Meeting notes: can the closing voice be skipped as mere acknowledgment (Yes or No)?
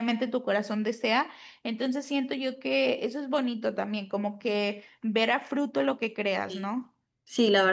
No